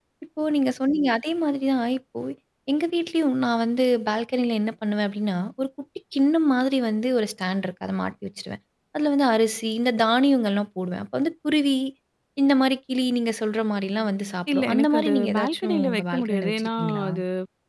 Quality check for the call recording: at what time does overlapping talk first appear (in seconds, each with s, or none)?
14.5 s